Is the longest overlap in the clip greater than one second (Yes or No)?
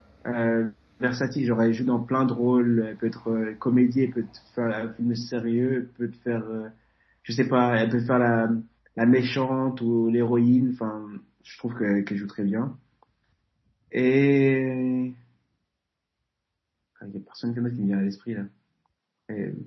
No